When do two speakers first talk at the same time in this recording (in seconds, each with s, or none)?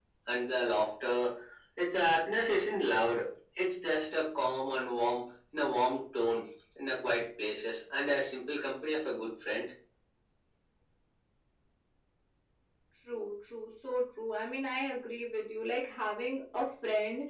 none